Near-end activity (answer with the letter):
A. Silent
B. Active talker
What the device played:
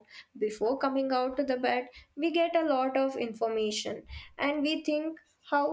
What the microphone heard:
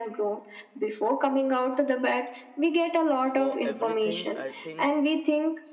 B